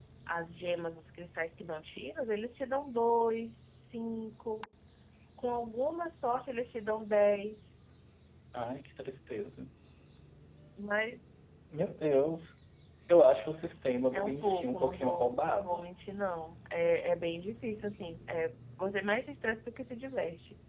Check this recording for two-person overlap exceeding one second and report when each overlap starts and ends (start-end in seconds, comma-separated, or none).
14.1-15.9